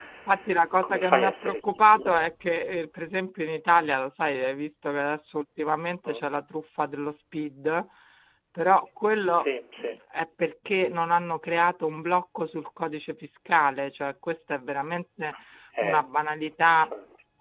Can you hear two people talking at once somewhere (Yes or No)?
Yes